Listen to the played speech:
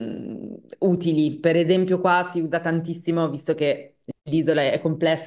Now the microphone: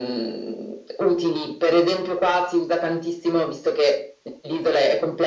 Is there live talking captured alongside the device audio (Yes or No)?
No